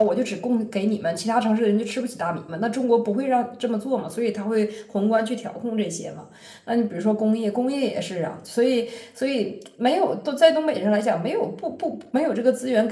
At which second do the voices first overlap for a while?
none

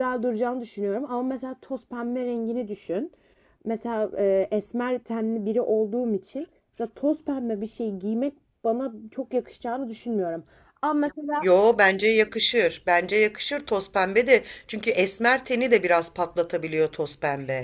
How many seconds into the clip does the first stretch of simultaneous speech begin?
none

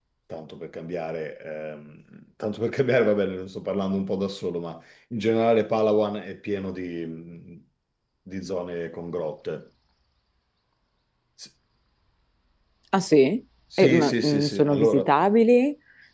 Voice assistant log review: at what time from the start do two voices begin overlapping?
13.8 s

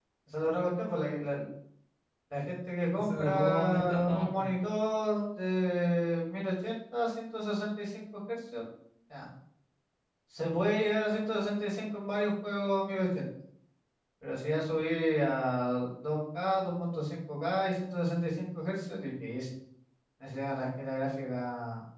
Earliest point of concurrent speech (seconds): 3.0 s

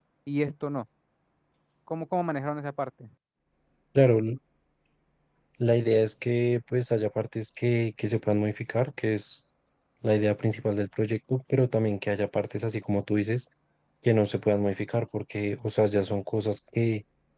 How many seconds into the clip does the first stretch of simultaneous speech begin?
none

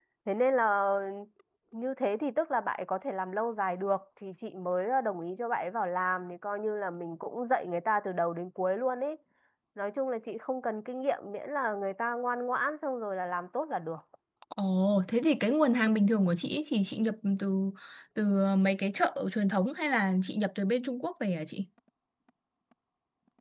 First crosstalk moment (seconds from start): none

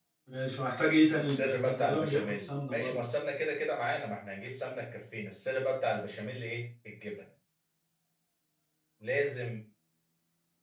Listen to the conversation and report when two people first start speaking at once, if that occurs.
1.2 s

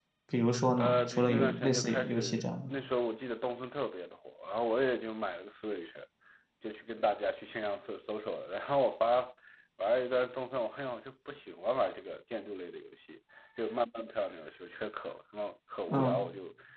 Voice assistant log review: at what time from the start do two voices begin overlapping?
0.8 s

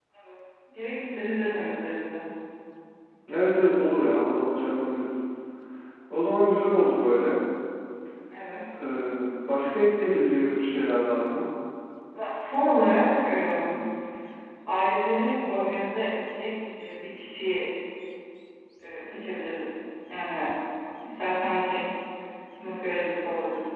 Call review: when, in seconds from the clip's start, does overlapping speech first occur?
none

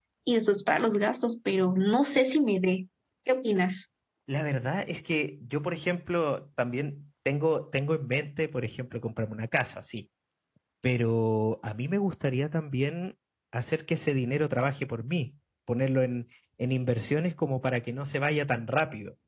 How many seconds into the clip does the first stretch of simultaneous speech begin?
none

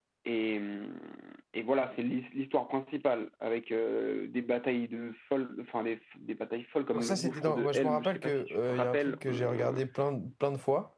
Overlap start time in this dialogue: 6.9 s

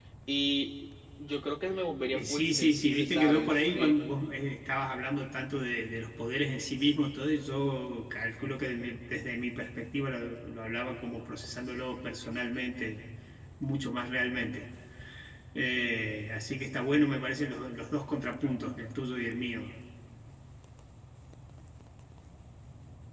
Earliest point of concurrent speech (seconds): 2.1 s

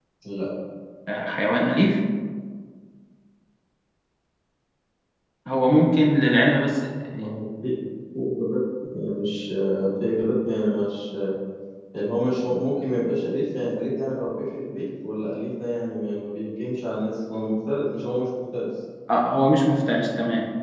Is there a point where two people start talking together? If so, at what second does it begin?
none

